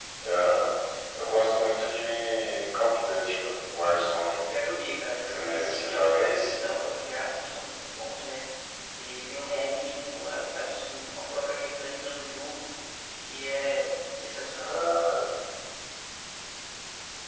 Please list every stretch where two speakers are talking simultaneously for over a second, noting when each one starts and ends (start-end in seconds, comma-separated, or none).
5.2-6.5